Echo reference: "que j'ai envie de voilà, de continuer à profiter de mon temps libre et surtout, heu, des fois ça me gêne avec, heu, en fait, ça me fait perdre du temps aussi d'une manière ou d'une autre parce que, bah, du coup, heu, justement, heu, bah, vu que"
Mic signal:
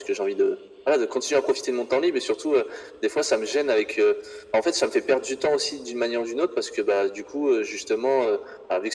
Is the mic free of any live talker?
Yes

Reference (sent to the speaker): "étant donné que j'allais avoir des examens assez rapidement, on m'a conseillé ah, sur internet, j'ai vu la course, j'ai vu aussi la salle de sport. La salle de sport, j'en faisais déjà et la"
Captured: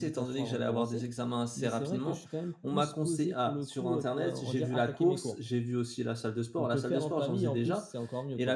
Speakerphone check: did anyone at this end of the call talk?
Yes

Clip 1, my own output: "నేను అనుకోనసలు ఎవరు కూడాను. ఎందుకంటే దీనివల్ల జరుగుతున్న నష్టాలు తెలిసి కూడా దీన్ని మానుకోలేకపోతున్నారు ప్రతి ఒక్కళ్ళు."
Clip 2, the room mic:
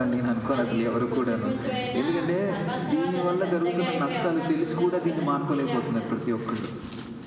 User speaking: Yes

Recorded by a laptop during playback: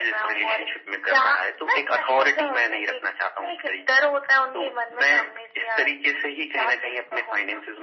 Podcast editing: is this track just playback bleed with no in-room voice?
Yes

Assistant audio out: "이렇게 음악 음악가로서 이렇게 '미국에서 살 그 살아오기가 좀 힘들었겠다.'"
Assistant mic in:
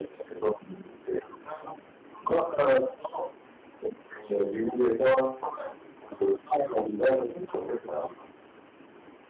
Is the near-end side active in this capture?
No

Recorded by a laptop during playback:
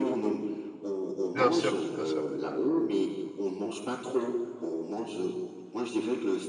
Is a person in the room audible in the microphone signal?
Yes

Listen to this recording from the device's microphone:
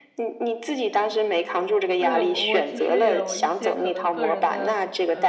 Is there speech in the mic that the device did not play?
Yes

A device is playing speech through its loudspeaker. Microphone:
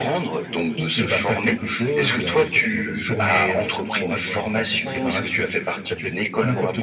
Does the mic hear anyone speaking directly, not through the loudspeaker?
Yes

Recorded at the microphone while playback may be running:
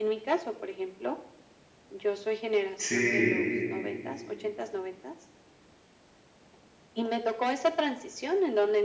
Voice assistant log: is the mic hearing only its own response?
No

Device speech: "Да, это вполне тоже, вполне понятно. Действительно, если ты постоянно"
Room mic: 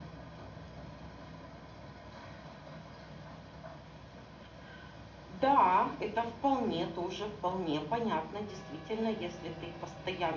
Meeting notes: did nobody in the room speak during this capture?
Yes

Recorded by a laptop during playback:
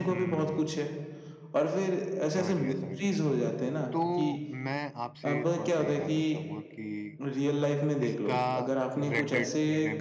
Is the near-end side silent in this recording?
No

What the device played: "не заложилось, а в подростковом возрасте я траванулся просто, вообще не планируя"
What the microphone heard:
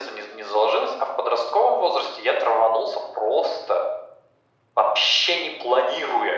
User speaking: No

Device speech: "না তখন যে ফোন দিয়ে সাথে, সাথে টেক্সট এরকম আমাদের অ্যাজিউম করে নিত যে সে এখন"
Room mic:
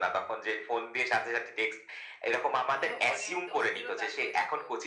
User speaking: Yes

